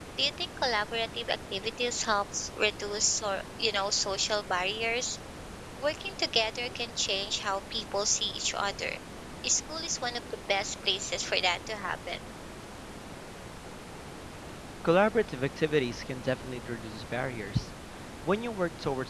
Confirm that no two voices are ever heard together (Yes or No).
Yes